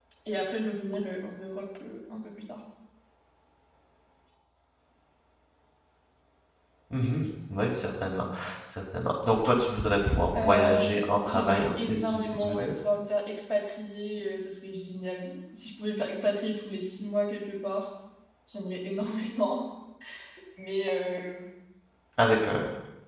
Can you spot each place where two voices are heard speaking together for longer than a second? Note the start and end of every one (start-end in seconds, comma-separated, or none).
10.4-12.7